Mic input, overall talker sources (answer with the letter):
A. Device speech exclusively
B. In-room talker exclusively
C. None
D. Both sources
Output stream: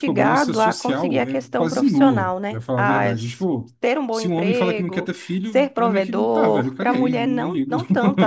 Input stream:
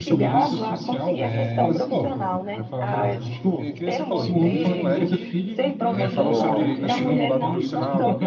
D